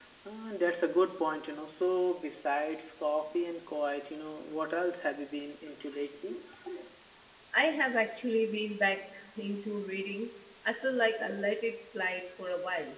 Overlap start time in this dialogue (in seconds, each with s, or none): none